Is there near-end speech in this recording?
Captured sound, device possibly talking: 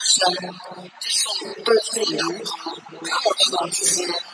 Yes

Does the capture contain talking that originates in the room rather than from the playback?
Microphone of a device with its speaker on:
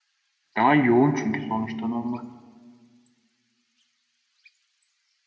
Yes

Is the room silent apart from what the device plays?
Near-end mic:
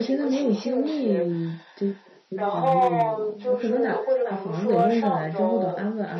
No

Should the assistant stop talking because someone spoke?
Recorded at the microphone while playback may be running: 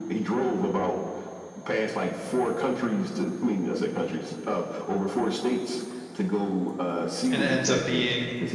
Yes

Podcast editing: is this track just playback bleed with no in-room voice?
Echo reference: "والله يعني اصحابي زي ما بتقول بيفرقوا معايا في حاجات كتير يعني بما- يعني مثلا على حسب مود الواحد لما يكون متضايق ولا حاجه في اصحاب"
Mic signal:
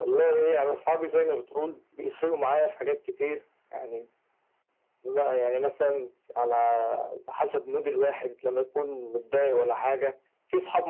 Yes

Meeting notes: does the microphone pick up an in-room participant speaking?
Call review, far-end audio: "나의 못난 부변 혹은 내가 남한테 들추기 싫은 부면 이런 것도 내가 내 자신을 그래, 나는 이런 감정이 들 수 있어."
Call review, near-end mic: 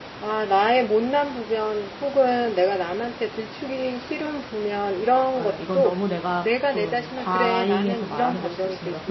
Yes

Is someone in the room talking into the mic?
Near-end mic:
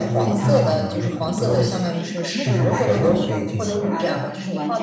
Yes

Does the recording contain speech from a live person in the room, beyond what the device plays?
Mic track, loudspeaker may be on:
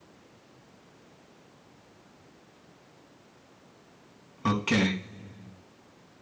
Yes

